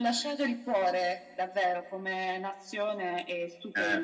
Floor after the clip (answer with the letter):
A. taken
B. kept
A